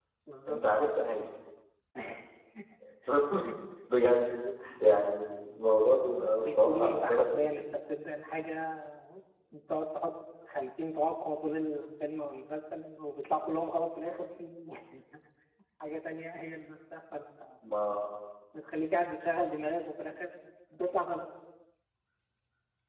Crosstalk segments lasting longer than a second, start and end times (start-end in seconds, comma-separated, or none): 6.2-7.5